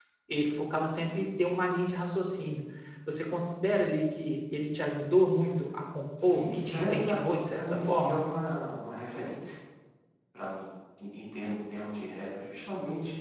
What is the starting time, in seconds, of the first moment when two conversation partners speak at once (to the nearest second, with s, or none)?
6 s